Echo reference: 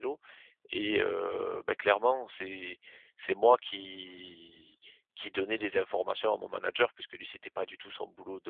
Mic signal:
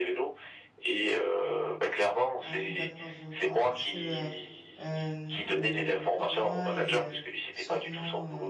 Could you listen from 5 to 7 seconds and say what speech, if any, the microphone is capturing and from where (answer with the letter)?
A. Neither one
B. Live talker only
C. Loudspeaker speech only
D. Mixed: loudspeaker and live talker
D